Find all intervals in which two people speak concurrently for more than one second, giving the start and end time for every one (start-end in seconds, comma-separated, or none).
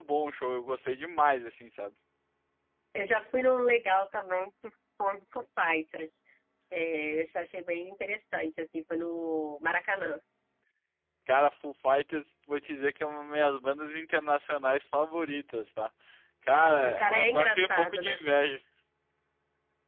16.5-18.2